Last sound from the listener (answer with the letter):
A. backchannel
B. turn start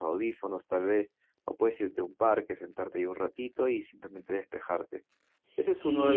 B